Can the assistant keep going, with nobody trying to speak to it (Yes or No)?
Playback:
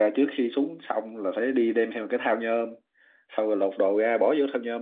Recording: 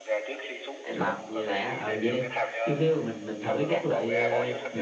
No